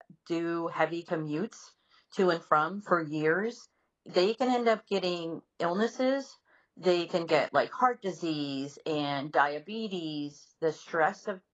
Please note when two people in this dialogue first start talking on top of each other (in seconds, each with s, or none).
none